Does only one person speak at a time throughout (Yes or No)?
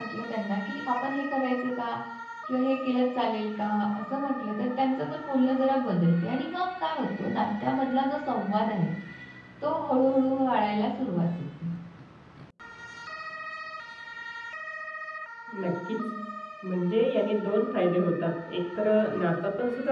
Yes